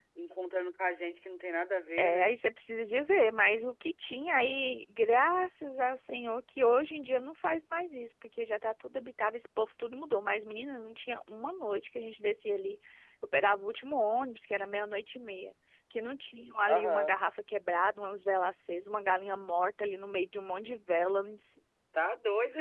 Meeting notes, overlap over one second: none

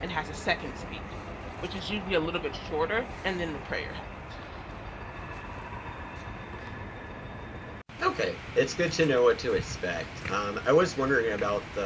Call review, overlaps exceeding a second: none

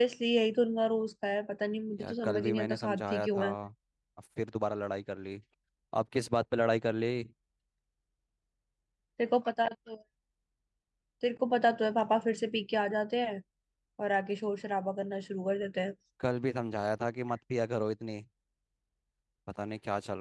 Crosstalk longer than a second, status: present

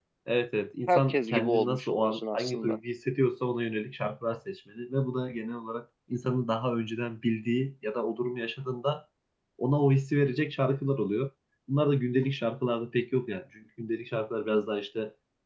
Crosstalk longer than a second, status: present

